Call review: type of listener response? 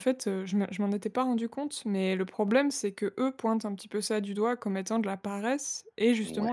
listening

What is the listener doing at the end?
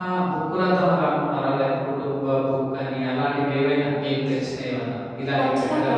taking over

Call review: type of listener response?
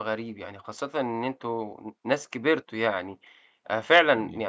listening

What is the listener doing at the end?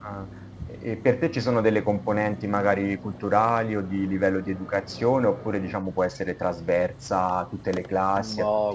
taking over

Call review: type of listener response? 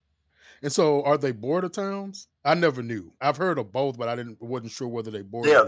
taking over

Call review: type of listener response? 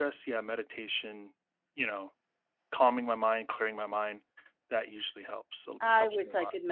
taking over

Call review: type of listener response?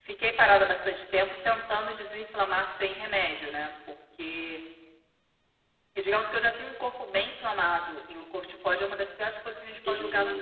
taking over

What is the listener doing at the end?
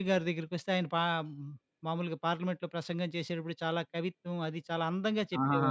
taking over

